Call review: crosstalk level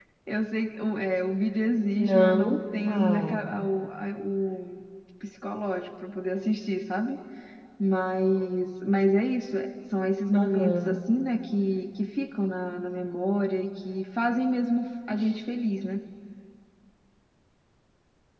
present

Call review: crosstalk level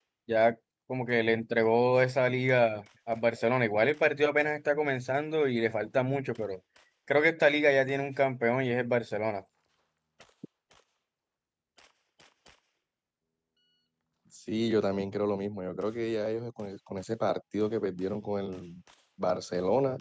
none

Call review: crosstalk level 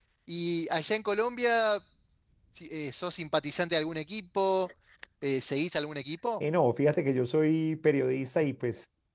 none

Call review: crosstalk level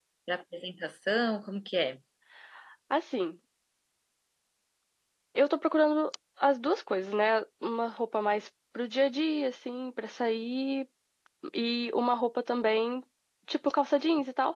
none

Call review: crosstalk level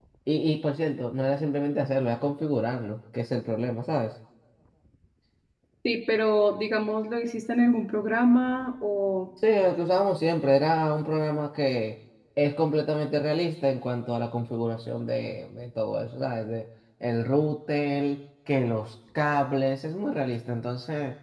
none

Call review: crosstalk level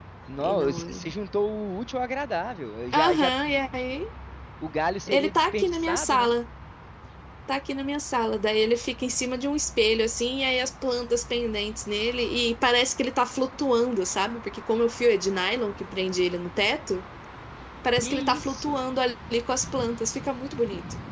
present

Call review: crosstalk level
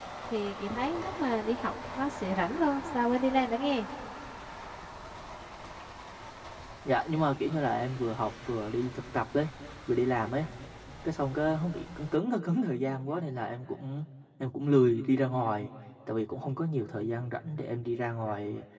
none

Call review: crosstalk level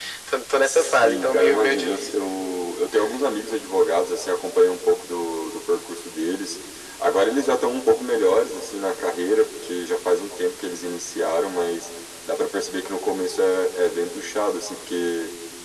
present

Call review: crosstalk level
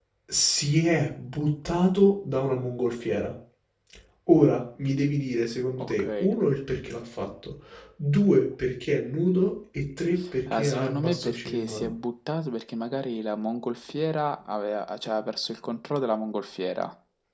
present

